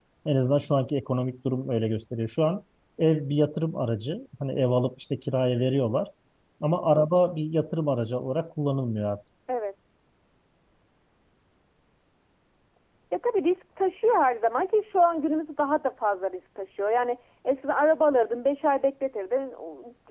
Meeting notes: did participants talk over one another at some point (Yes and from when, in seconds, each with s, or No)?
No